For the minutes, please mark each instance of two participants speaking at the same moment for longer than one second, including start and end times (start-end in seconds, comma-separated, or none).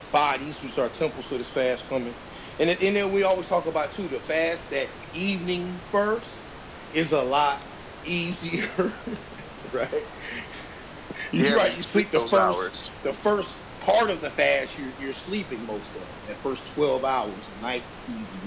11.4-12.7